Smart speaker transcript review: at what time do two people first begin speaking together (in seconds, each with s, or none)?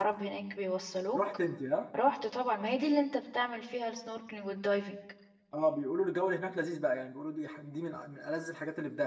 none